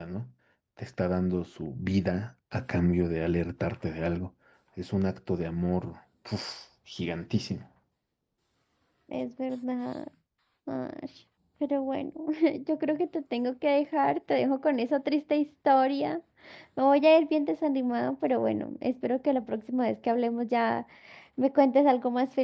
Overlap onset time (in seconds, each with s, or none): none